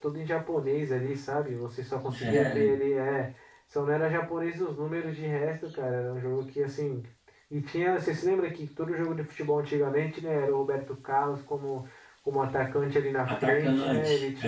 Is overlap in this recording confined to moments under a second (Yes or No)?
No